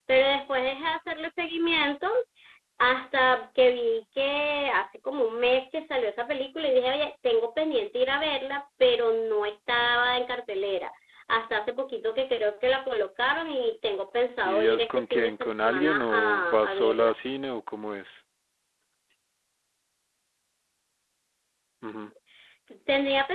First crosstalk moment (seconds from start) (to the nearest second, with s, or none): 14 s